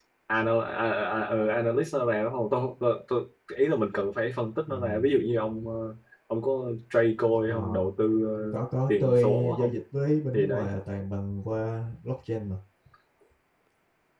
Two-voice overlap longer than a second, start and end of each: 8.5-9.7

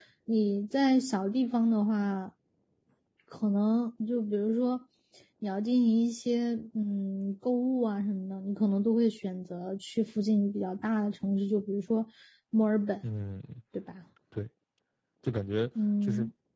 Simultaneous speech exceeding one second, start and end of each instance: none

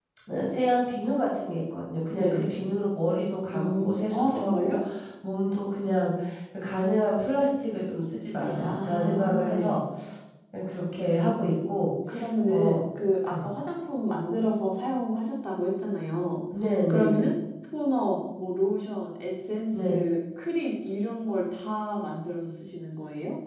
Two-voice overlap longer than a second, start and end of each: 3.5-4.8, 8.4-9.8

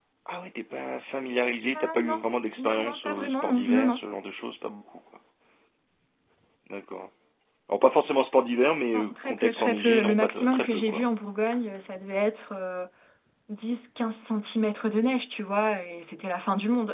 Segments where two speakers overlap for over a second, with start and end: 2.6-4.0, 8.9-11.0

